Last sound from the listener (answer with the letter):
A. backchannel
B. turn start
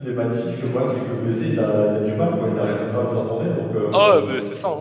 B